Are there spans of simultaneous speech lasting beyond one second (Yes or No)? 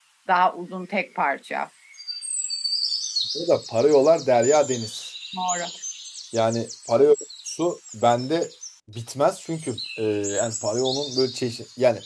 No